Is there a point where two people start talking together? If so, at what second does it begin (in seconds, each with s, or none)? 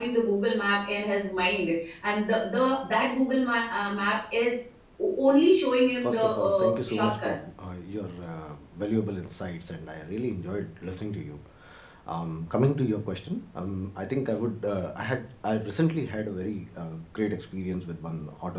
6.0 s